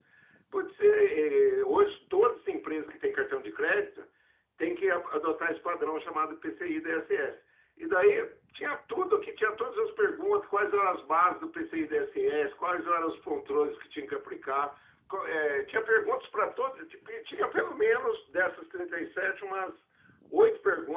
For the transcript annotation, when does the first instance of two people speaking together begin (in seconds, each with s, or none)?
none